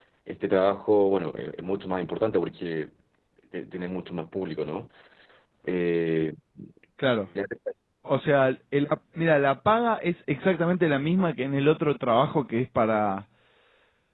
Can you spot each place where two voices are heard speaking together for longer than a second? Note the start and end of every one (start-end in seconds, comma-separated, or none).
none